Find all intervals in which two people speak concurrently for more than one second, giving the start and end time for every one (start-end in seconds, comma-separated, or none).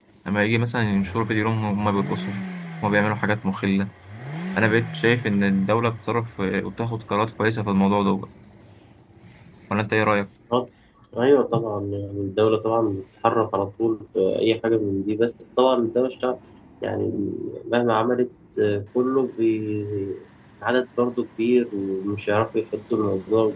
none